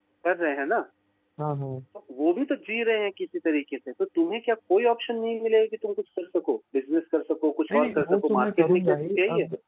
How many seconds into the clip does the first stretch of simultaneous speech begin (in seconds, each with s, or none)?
7.7 s